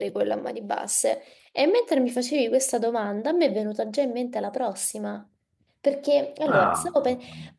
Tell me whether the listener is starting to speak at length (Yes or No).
No